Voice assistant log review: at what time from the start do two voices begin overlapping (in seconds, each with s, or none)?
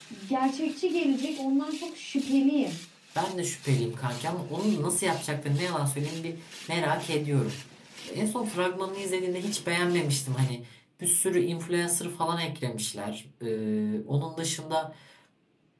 none